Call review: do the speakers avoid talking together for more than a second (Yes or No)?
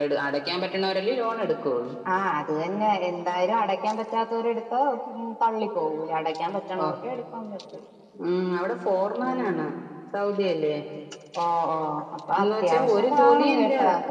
No